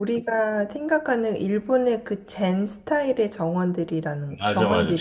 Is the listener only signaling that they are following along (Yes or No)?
No